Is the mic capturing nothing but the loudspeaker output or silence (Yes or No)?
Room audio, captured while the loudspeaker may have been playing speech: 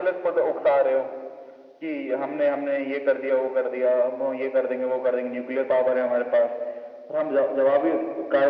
Yes